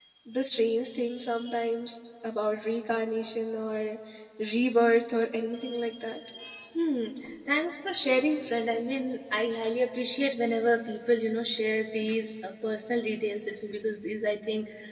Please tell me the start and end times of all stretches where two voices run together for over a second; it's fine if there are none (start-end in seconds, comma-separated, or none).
none